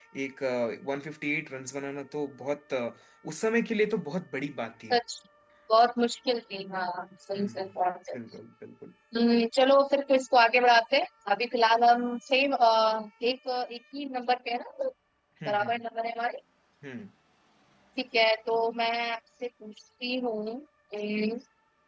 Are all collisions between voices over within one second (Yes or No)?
Yes